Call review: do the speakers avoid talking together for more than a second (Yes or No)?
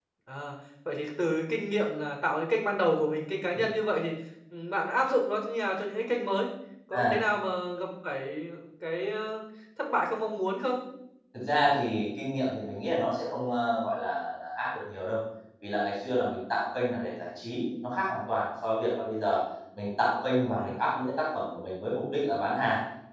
Yes